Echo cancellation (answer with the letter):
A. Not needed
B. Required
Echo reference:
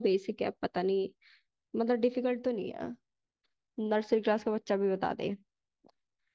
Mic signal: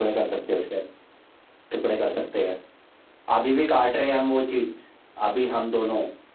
A